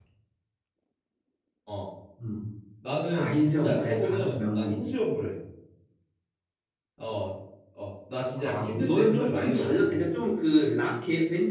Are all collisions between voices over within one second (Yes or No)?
No